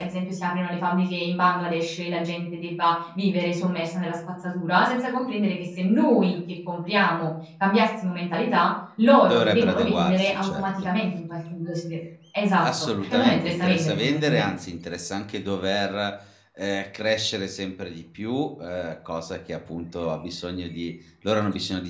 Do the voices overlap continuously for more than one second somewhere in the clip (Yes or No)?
Yes